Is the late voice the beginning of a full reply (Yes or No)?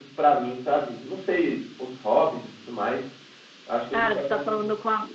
Yes